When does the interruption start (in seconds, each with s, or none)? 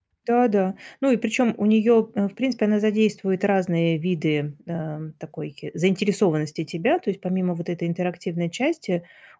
none